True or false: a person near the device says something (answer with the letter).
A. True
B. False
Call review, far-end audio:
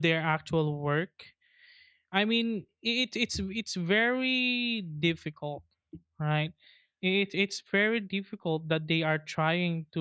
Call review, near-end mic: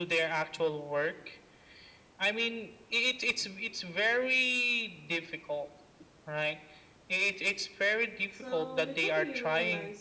A